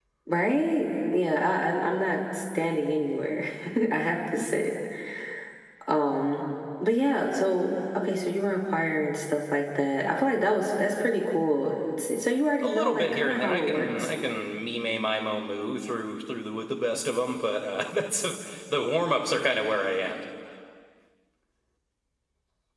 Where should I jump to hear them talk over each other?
12.6 s

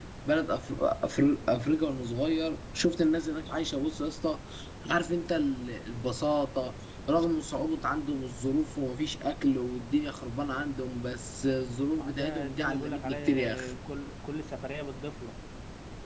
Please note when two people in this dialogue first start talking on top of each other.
12.0 s

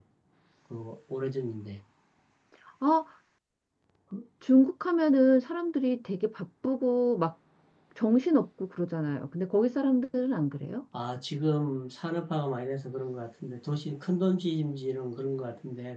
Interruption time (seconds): none

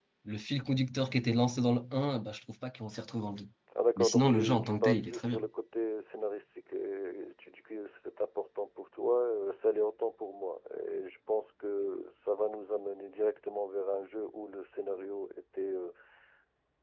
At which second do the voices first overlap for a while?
4.0 s

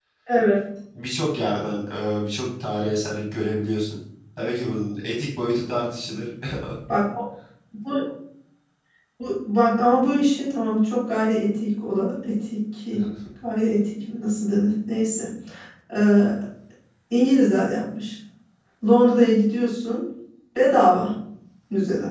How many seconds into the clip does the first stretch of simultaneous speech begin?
none

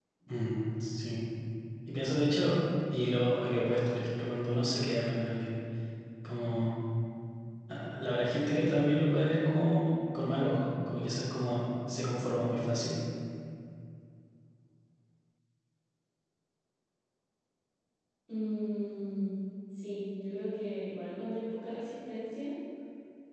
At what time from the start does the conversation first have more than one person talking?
none

